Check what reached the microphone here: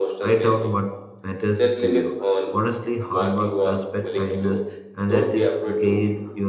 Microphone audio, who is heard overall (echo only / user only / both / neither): both